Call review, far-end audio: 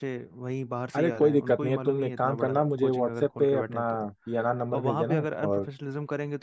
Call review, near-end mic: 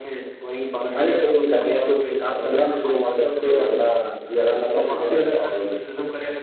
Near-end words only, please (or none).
none